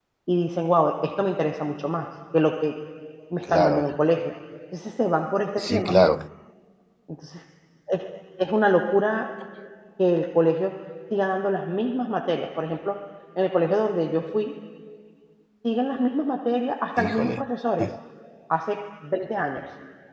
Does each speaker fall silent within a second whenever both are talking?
Yes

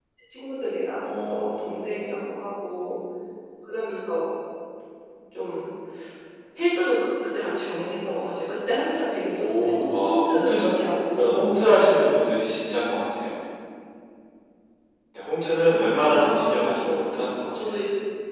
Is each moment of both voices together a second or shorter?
No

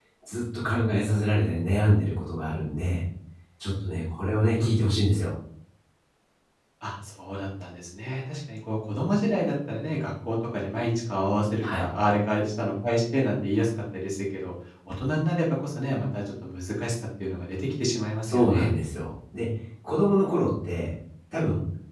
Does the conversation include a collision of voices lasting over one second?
No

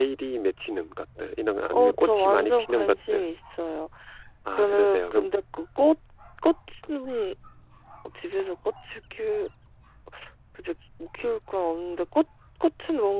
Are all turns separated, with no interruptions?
No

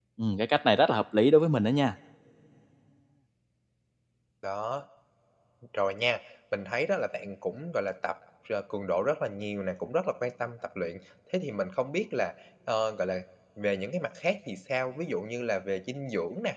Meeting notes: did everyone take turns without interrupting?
Yes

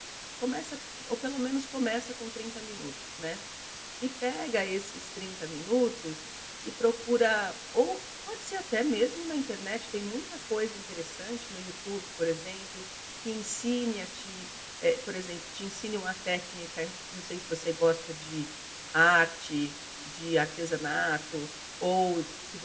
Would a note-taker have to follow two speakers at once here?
No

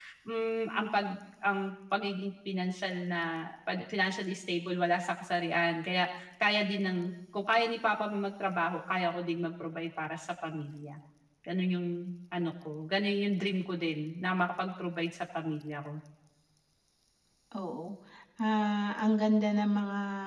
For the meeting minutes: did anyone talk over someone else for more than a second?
No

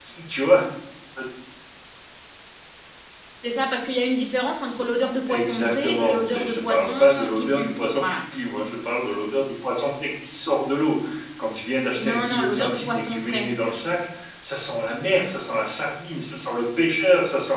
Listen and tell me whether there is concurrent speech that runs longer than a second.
Yes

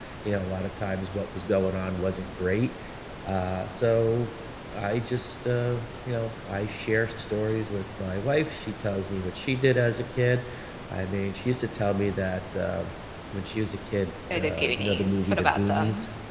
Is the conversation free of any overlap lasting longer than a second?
No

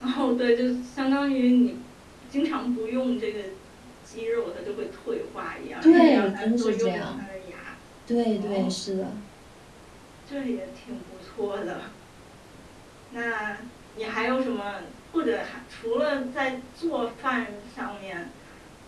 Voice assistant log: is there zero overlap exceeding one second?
No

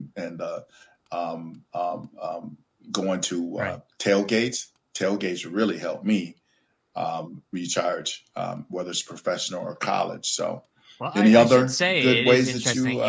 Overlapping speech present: Yes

